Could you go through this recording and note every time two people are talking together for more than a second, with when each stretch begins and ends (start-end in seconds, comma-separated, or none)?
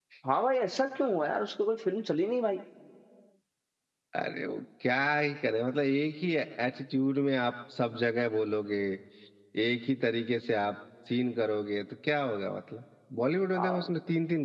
none